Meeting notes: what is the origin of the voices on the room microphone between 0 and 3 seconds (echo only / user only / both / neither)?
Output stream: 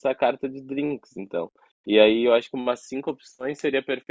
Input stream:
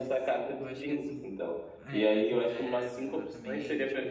both